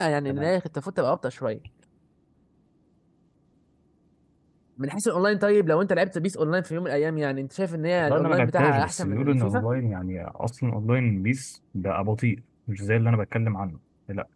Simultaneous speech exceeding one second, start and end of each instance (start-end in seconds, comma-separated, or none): 8.0-9.6